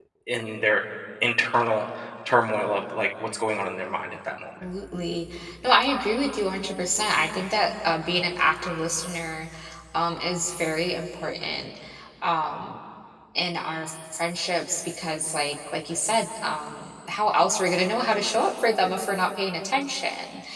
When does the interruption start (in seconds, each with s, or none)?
none